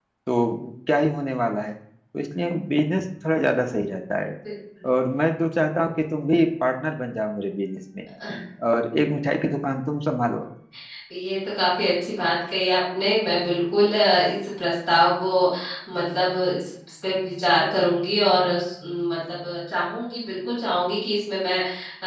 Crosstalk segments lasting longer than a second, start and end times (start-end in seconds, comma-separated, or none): none